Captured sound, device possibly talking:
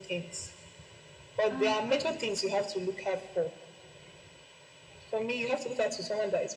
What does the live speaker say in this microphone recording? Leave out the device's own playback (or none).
and uh,